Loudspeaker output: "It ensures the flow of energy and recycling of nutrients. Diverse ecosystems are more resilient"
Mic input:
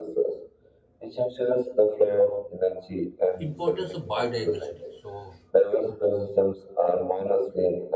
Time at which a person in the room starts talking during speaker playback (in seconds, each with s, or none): 3.4 s